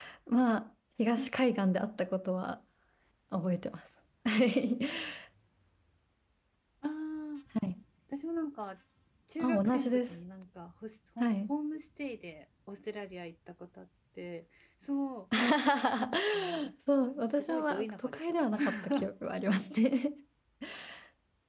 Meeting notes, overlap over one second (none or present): present